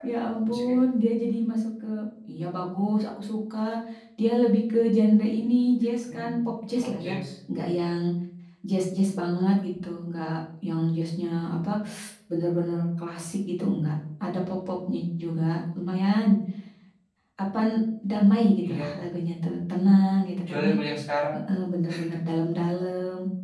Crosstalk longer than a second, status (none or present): none